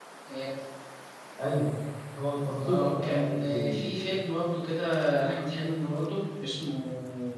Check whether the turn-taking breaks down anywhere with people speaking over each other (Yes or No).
Yes